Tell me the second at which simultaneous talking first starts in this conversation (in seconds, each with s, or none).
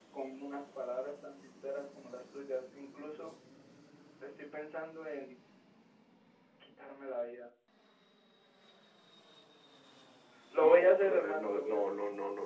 10.6 s